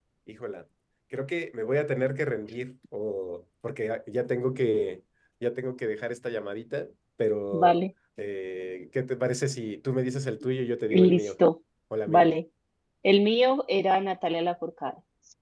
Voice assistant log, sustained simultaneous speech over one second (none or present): none